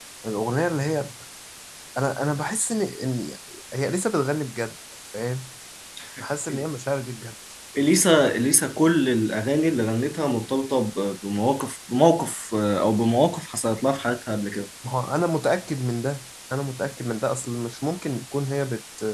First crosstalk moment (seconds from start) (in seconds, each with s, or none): none